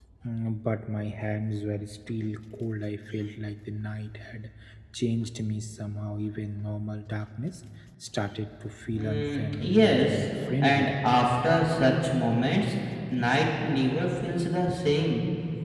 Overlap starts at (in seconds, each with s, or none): 8.9 s